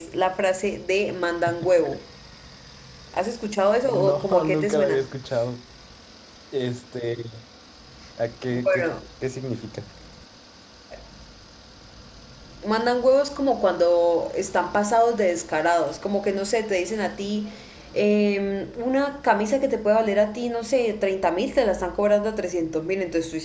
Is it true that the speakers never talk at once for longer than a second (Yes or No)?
No